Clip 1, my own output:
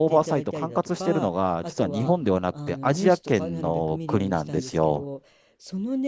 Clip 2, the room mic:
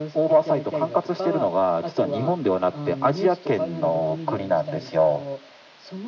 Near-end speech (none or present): none